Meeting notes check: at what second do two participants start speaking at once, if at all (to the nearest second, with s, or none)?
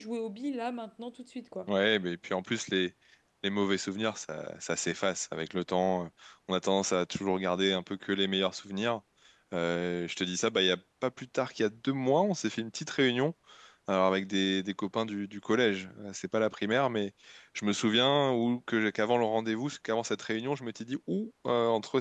none